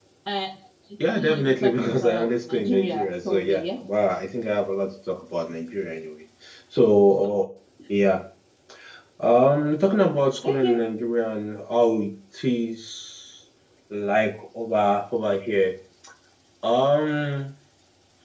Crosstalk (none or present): present